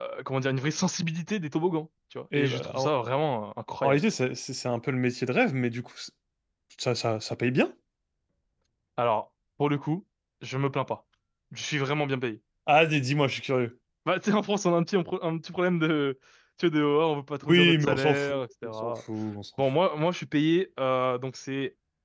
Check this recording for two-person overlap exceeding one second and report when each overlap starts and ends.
17.4-18.9

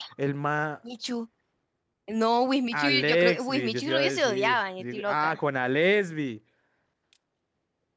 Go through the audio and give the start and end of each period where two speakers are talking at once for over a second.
2.7-5.4

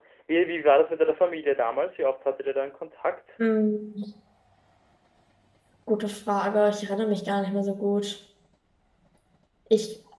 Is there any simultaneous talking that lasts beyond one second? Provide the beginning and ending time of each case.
none

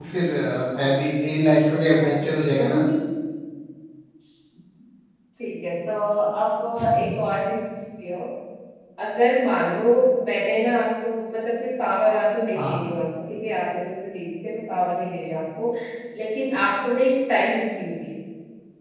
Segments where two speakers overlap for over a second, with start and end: none

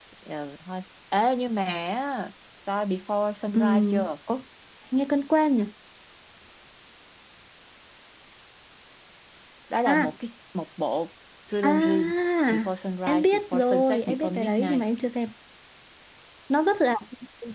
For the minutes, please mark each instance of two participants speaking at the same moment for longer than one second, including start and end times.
13.1-14.8

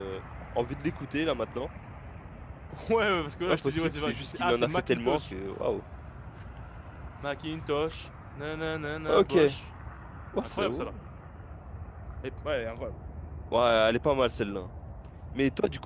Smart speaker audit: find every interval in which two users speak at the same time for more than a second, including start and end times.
3.5-5.3

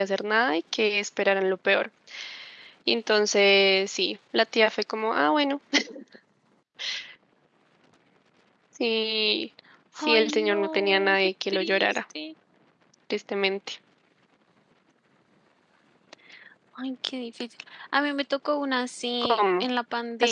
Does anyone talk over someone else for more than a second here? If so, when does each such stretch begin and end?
10.0-12.0

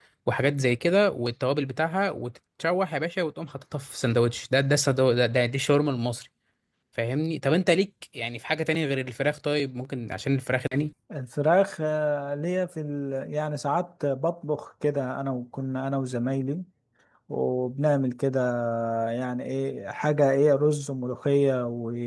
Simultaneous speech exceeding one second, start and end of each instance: none

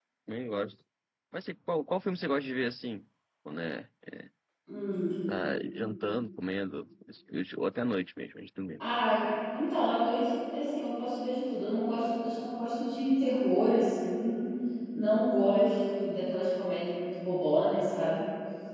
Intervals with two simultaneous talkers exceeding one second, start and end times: none

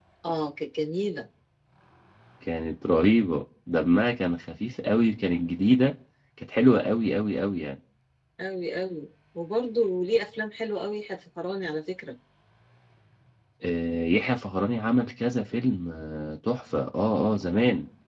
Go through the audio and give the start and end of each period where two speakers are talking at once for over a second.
none

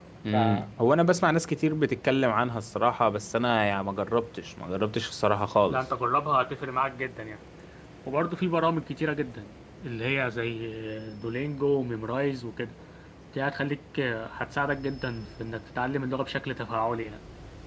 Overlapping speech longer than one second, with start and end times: none

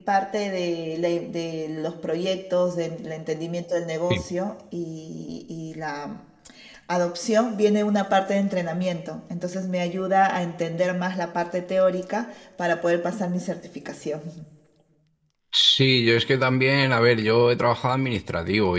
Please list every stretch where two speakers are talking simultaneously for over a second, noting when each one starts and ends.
none

